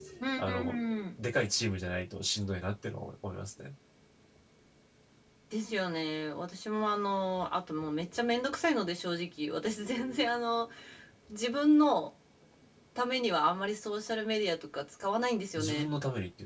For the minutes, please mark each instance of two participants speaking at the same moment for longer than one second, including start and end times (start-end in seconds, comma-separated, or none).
none